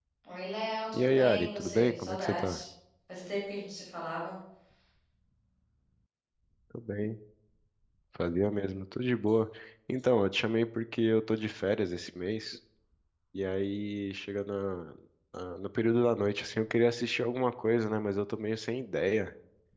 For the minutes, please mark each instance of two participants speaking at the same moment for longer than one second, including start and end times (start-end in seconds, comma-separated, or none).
0.9-2.6